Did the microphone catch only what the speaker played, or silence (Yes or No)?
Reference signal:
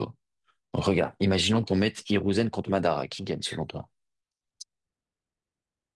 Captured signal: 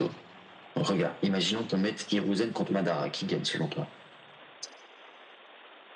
Yes